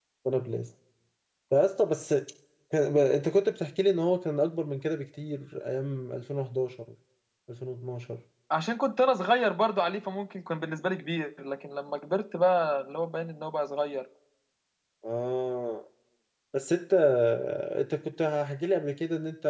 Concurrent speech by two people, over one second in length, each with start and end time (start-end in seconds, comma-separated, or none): none